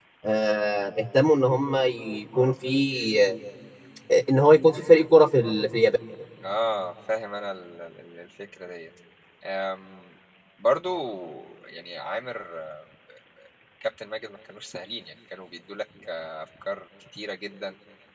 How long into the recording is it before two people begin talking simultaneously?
none

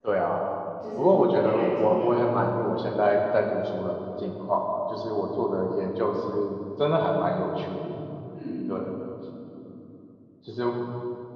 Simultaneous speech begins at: 1 s

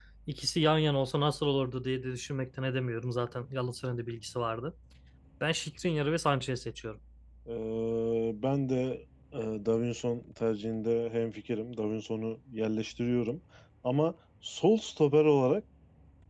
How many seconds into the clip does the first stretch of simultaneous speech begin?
none

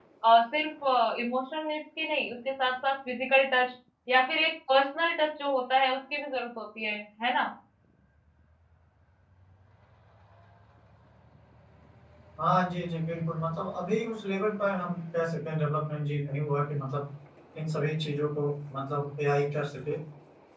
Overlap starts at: none

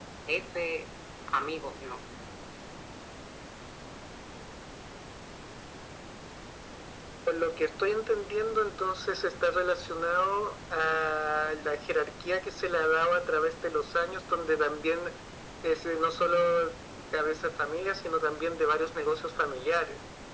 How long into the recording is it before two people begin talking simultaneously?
none

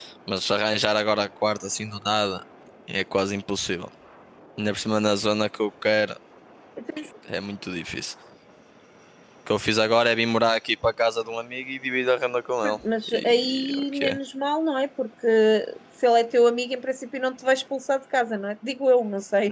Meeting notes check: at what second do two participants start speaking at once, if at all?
13 s

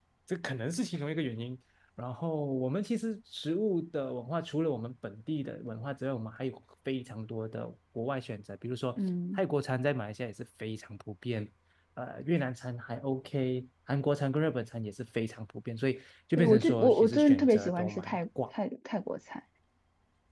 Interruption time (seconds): 16 s

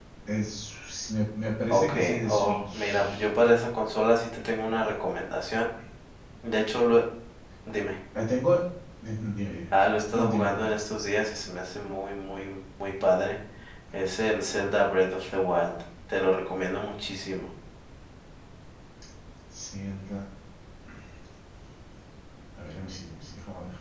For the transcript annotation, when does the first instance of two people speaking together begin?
2 s

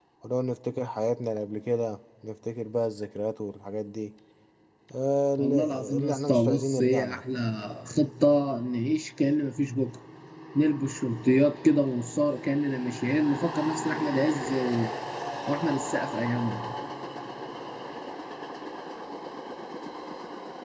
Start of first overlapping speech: 5 s

